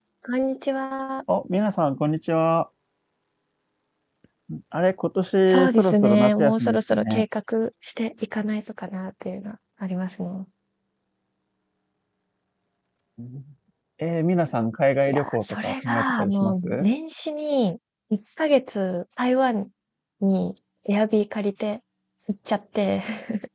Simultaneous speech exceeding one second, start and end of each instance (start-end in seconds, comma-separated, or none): 5.5-7.2, 15.1-16.8